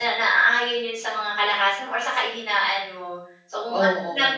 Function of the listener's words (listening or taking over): listening